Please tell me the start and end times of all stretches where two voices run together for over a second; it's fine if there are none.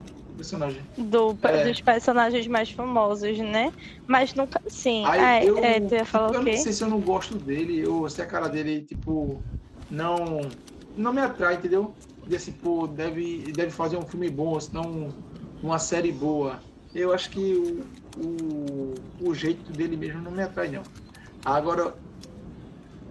5.0-6.7

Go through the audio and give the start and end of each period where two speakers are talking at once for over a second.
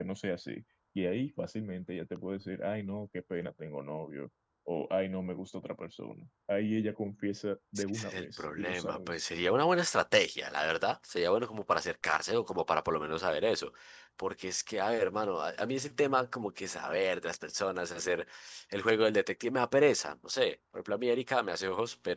7.8-9.2

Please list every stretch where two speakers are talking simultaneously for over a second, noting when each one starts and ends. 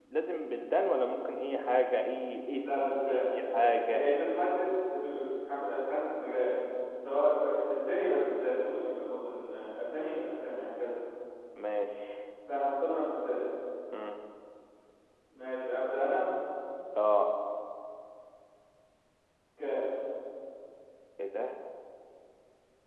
2.6-4.0

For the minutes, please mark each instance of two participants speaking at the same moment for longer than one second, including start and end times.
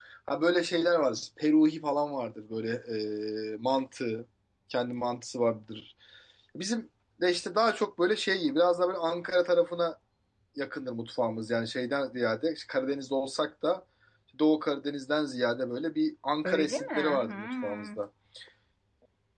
16.4-18.0

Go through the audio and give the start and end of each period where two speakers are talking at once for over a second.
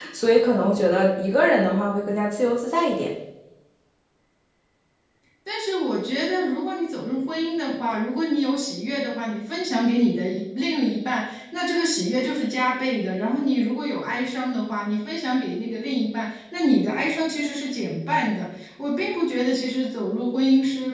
none

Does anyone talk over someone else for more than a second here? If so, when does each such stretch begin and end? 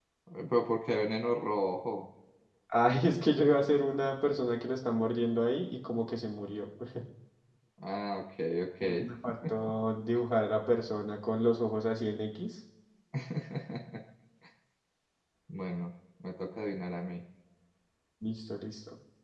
none

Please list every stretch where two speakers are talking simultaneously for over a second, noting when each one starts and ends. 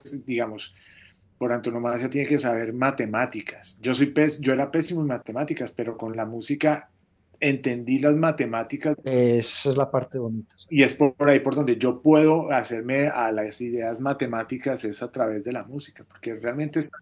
none

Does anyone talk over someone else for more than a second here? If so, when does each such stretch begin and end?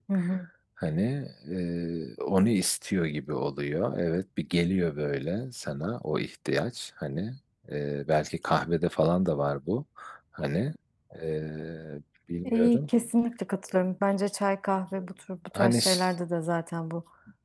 none

